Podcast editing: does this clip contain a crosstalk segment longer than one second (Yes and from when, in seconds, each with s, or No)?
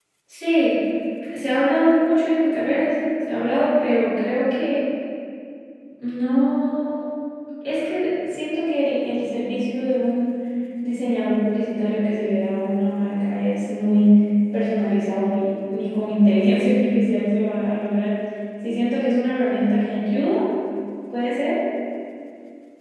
No